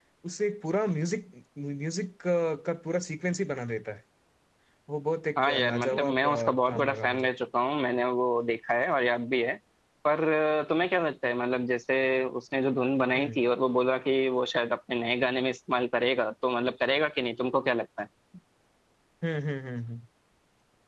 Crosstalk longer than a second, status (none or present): present